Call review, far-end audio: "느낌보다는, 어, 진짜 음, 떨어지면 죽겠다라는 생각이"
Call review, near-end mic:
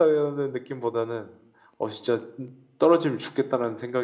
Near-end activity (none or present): none